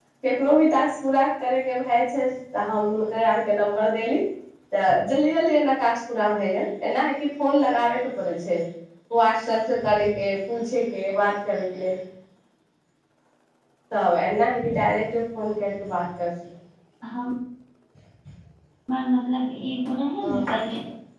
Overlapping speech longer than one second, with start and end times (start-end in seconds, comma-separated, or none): none